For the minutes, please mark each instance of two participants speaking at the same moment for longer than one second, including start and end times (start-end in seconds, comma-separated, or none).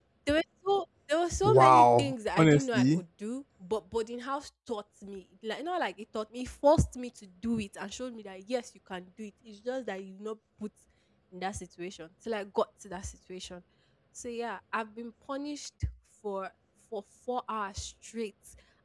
1.4-3.0